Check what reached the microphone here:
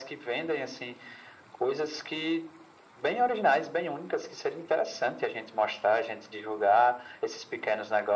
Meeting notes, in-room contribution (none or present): none